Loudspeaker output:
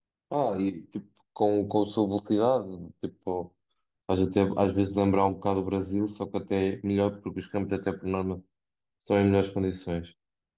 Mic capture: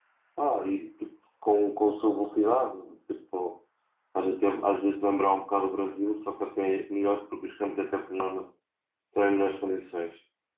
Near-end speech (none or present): none